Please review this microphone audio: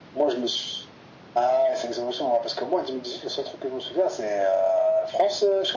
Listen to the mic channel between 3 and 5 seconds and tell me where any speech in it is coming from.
echo only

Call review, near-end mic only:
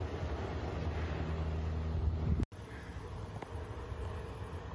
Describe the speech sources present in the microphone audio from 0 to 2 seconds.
neither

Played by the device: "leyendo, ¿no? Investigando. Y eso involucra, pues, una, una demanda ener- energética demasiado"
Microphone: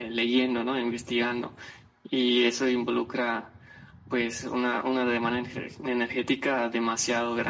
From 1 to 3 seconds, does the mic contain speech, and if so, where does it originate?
echo only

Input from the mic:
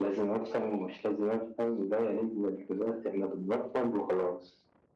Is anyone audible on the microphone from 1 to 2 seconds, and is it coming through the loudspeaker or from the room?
echo only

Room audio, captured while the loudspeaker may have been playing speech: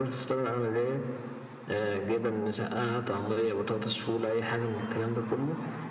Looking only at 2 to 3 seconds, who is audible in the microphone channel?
echo only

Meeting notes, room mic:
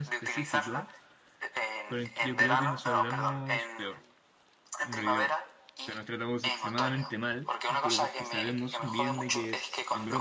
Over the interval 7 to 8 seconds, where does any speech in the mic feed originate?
both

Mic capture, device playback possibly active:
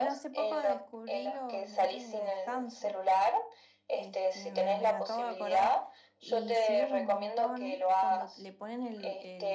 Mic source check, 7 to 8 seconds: both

